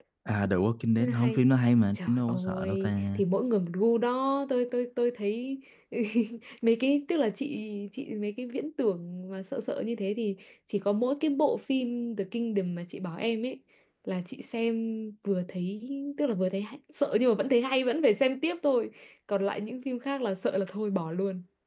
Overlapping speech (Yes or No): Yes